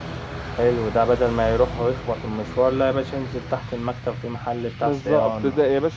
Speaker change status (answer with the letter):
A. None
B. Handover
B